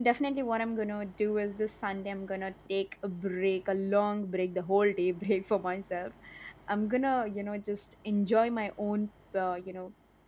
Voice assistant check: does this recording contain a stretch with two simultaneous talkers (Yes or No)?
No